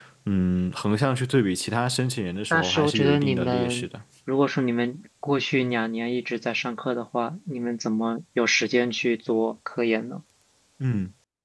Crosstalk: present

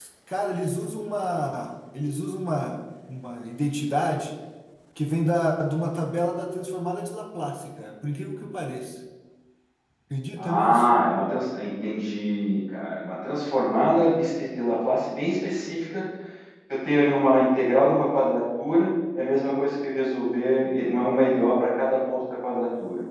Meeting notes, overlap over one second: none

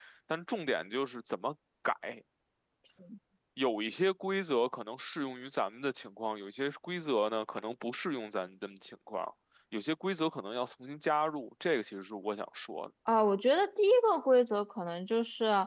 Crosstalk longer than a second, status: none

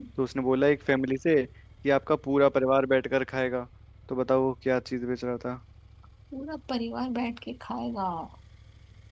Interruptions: none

